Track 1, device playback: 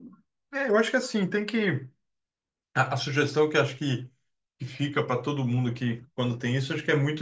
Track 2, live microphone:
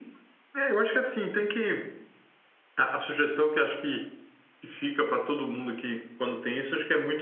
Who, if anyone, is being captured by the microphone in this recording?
echo only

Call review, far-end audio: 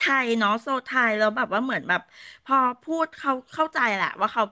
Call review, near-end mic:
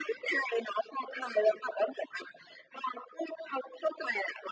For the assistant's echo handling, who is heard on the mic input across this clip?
echo only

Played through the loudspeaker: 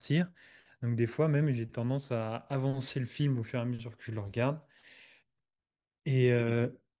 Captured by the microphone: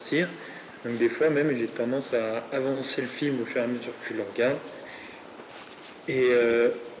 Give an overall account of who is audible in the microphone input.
echo only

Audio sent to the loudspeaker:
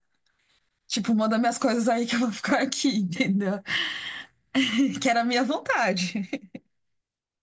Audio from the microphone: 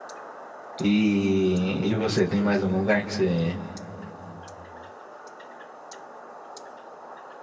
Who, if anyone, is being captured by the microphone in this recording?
user only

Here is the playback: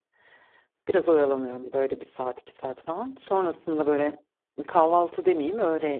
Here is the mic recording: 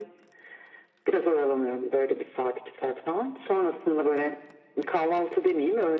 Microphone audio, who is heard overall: echo only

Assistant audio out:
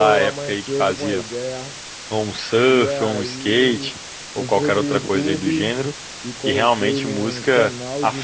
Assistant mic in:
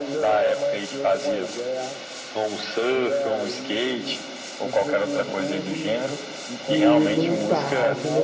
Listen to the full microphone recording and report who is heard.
both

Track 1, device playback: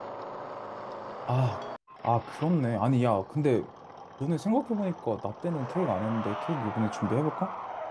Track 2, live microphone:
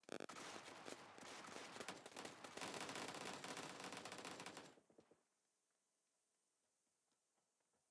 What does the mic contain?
neither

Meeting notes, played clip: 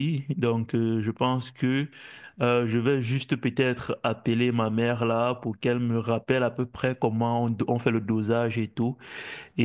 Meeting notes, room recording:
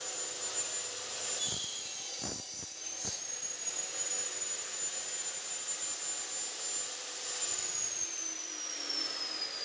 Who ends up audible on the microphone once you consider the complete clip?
neither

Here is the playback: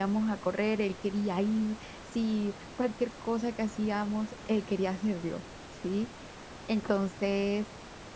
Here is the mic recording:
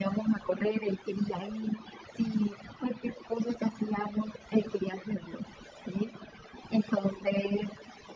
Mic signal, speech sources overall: echo only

